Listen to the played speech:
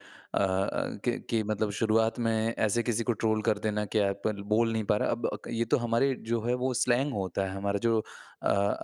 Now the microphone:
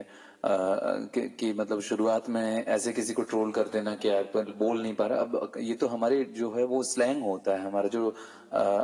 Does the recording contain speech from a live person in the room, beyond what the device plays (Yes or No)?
No